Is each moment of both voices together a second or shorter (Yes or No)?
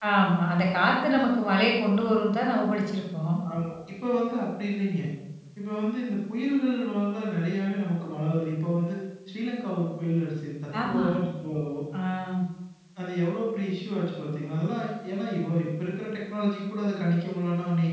Yes